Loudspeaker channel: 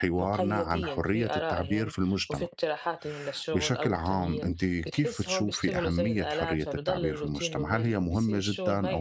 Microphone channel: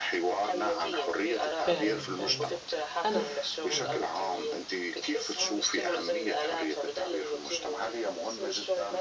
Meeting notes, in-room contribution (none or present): present